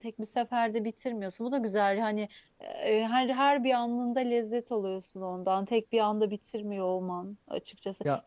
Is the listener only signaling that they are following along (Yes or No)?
Yes